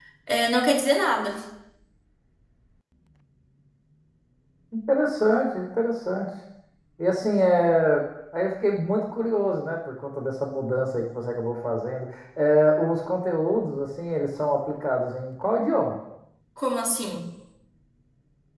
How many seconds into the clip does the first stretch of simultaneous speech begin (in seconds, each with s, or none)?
none